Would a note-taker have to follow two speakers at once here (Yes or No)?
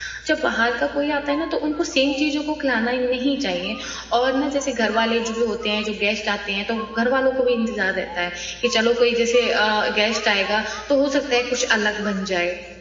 No